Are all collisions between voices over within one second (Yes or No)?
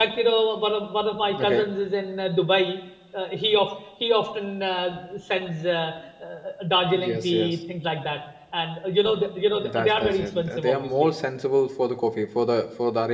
No